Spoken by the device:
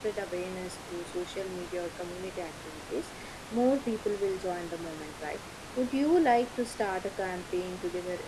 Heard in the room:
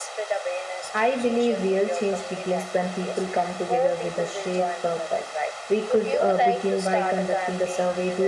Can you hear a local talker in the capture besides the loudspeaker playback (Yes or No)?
Yes